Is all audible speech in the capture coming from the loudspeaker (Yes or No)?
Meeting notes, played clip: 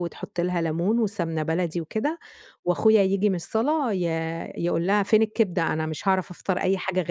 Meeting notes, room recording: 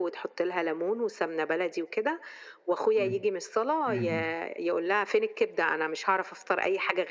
No